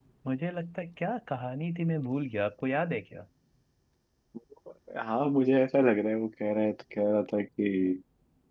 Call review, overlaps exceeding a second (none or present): none